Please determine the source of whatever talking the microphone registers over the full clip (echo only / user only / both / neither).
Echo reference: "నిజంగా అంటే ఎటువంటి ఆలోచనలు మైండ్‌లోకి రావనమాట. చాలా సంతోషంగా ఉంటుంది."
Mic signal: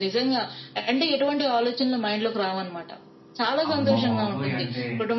both